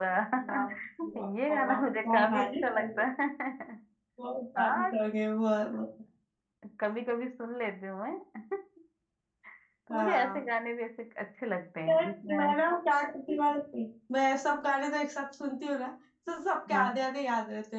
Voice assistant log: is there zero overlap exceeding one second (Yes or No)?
No